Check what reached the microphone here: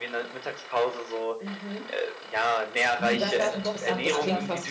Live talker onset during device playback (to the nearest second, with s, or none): 3 s